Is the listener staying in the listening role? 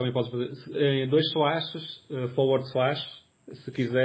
Yes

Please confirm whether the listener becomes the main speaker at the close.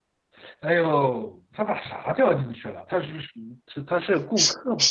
Yes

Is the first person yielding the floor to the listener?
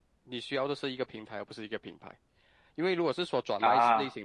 No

